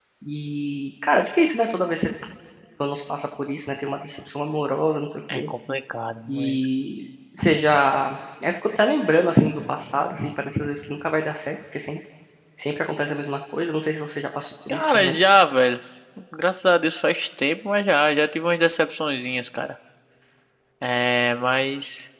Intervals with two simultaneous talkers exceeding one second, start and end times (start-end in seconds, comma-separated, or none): none